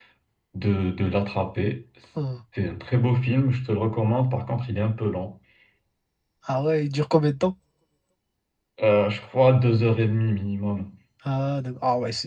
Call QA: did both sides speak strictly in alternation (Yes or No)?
Yes